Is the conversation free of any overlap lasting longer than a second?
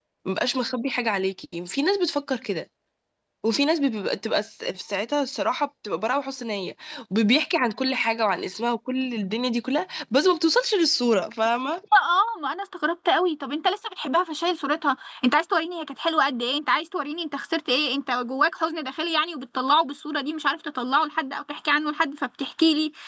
Yes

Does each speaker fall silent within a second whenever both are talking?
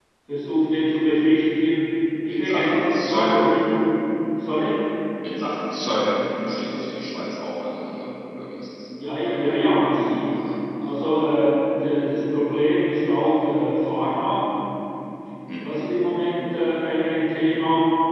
No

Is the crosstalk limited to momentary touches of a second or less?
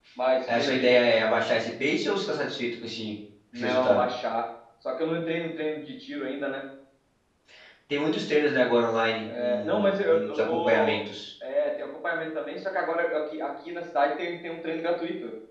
No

